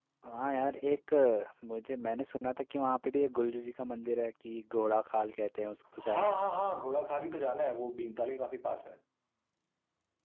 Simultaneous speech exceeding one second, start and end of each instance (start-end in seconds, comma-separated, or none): none